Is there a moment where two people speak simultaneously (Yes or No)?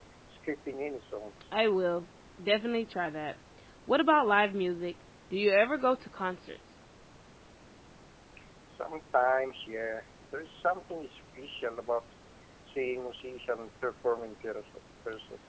No